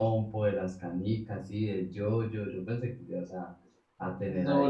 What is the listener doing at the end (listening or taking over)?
taking over